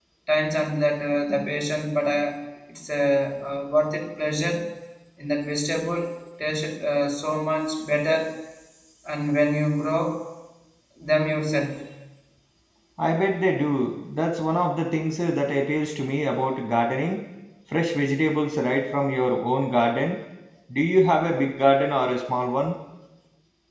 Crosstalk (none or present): none